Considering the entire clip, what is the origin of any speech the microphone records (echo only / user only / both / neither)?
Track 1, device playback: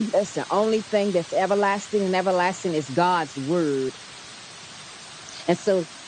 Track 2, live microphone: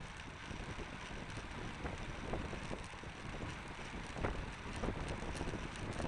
neither